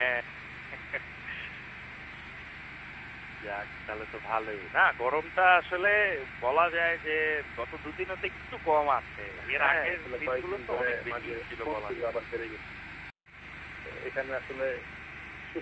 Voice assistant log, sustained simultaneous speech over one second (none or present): present